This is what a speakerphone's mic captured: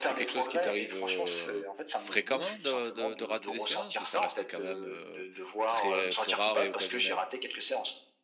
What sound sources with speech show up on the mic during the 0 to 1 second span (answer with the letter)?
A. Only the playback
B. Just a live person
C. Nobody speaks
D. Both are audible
D